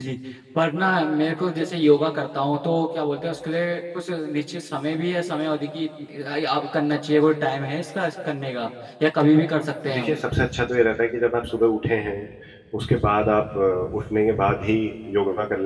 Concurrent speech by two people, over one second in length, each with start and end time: none

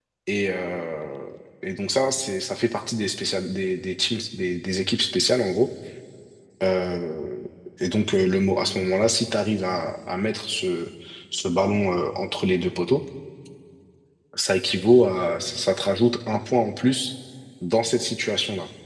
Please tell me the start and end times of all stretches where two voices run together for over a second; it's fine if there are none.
none

